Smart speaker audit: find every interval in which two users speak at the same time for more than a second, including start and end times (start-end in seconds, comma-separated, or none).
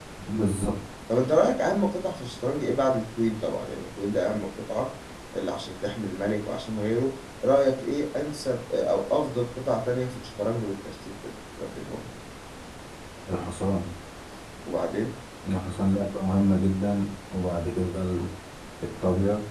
none